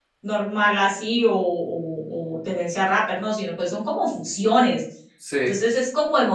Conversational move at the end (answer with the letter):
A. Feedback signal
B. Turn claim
A